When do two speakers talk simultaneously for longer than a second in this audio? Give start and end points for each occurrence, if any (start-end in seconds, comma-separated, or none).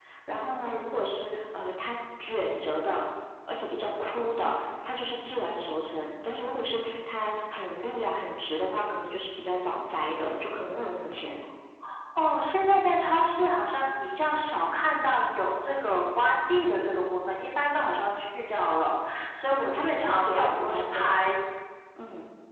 19.5-21.1